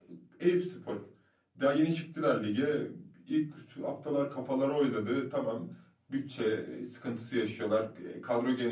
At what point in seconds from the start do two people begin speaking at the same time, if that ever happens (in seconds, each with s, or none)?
none